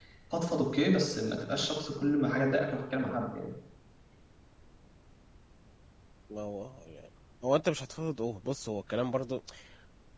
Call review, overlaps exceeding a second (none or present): none